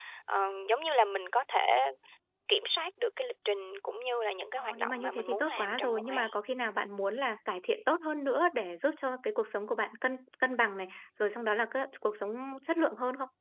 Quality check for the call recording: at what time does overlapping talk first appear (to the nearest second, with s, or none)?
5 s